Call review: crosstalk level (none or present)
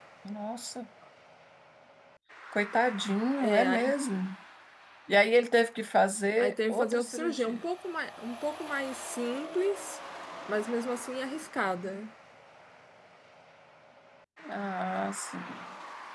present